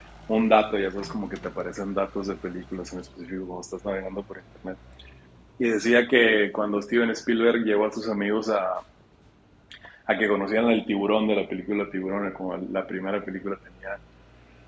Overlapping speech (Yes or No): No